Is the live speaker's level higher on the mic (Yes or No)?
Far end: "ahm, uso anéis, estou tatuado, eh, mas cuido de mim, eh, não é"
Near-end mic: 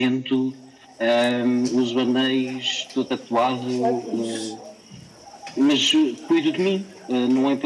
No